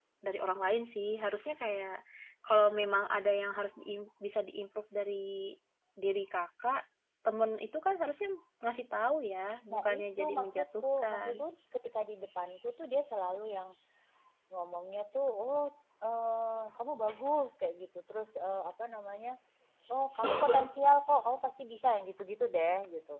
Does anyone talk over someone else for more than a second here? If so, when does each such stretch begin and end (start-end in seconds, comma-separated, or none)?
9.7-11.4